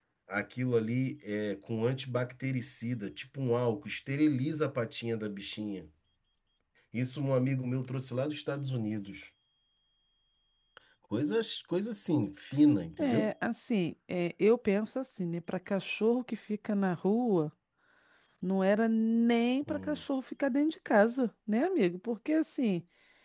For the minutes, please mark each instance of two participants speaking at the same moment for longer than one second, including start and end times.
none

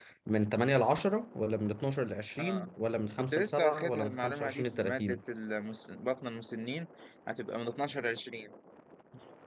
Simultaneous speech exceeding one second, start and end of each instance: 3.3-5.2

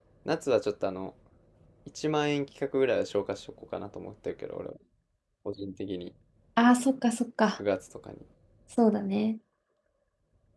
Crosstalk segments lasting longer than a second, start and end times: none

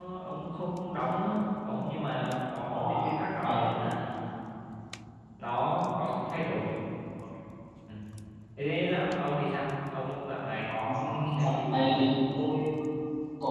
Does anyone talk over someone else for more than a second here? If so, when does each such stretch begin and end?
10.8-12.1

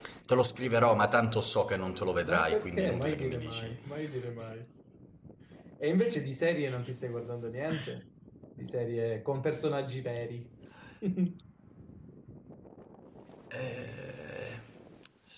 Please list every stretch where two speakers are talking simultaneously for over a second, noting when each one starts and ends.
2.2-3.8

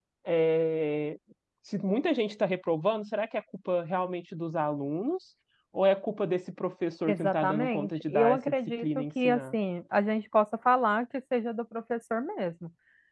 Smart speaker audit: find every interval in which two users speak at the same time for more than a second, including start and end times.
7.1-9.6

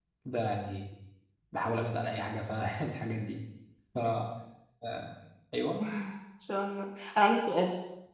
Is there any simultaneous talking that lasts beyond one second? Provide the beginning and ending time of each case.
none

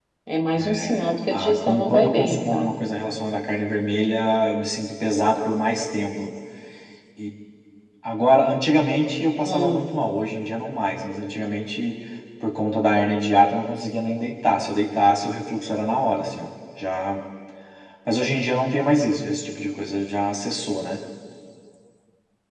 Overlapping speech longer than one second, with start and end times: 0.5-2.7

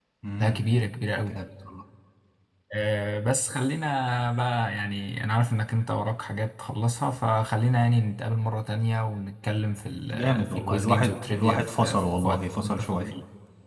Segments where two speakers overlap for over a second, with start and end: 10.1-13.1

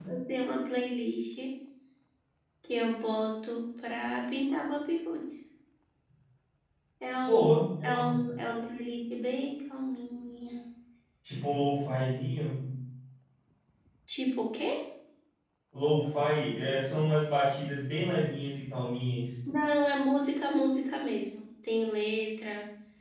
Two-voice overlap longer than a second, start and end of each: none

